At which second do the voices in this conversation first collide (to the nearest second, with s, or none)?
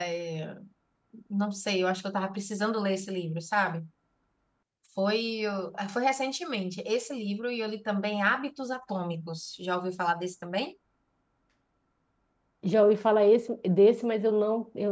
none